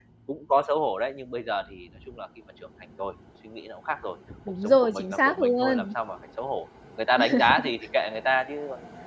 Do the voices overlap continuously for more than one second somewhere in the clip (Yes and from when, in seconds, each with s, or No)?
Yes, from 4.6 s